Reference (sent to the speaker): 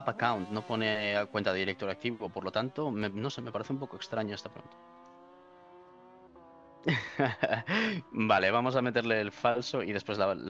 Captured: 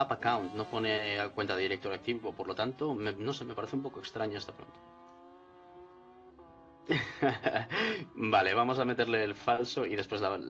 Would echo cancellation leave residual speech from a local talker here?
No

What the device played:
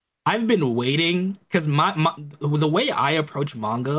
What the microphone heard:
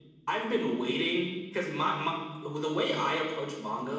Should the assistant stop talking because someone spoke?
No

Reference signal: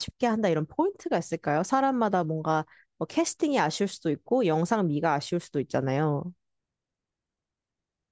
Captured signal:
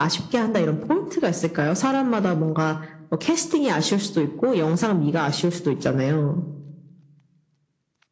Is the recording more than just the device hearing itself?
No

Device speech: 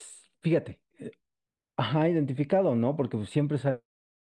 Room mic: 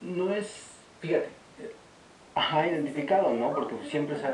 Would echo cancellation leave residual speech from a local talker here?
Yes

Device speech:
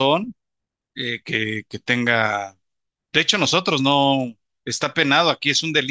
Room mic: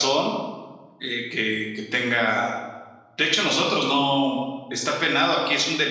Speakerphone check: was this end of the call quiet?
Yes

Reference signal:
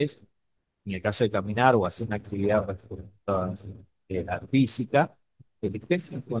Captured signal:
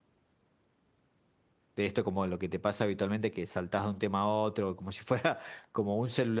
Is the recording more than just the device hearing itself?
Yes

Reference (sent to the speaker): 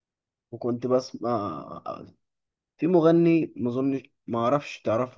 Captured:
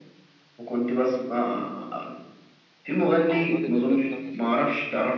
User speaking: Yes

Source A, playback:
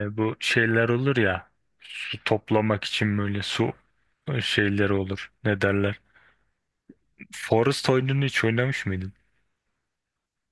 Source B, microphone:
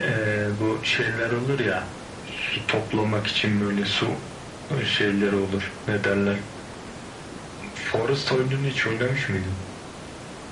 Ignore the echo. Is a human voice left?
No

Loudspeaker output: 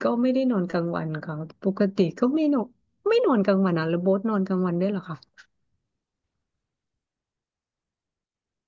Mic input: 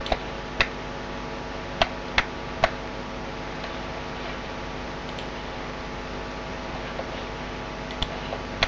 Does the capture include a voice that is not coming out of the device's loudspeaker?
No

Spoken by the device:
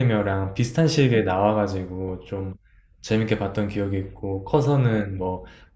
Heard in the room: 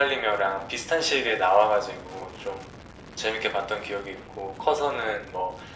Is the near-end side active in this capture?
No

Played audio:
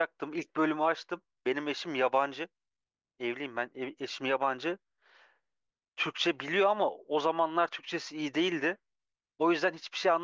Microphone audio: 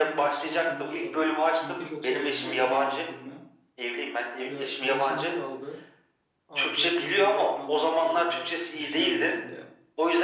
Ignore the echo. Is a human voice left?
Yes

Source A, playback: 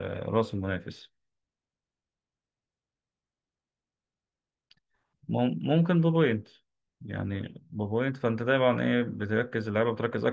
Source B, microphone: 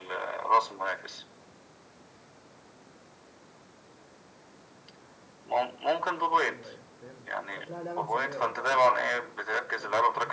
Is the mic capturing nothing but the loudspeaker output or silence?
No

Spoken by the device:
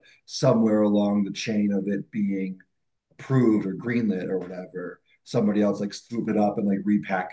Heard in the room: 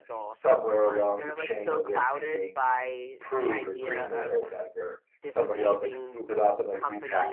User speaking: Yes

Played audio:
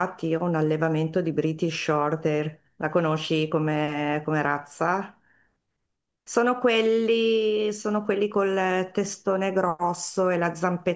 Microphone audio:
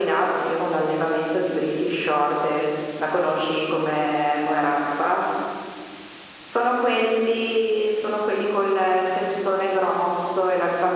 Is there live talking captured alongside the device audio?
No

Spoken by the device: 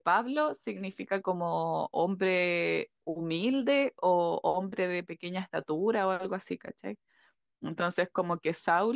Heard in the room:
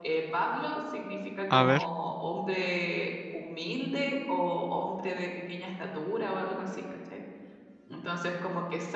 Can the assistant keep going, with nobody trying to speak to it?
No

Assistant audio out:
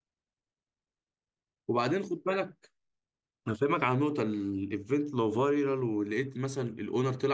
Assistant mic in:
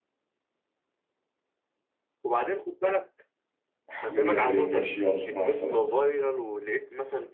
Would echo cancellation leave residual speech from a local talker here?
Yes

